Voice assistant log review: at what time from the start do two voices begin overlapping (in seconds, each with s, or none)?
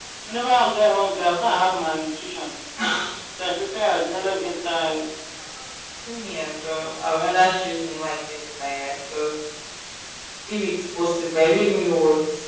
none